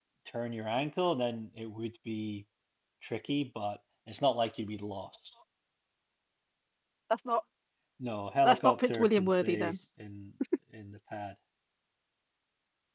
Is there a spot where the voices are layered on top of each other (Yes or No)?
Yes